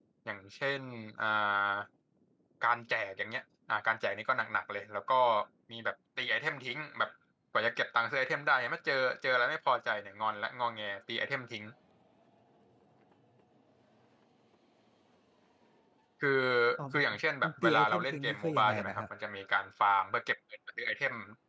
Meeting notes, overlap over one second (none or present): present